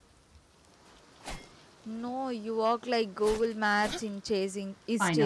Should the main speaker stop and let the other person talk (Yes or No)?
Yes